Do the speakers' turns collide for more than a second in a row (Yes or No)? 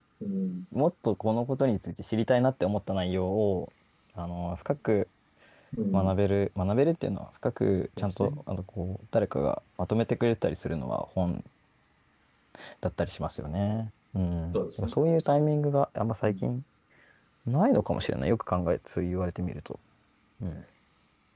No